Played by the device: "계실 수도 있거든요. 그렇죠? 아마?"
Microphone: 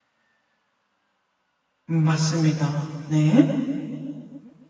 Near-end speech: present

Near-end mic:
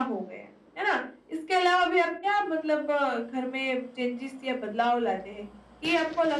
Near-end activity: none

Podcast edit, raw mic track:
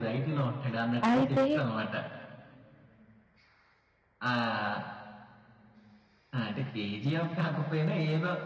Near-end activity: present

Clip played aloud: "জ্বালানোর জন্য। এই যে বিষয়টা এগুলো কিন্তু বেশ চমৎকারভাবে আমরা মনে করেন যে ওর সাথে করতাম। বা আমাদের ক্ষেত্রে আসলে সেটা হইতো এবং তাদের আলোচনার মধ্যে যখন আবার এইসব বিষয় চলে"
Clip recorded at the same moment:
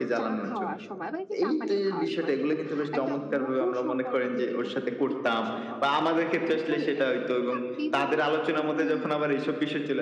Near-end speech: present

